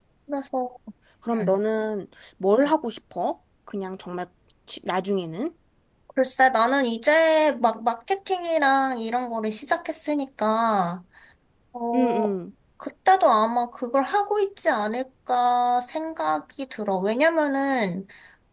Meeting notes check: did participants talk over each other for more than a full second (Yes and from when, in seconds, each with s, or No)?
No